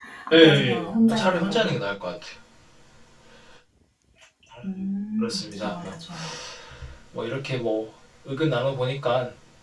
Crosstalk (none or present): present